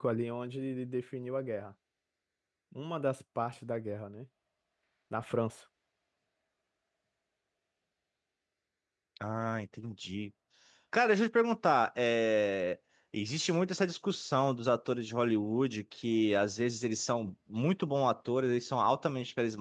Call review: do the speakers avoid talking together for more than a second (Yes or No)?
Yes